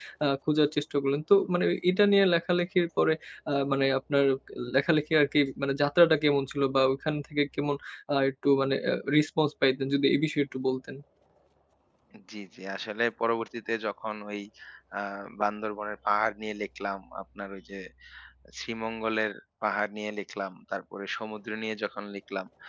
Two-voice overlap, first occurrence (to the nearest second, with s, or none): none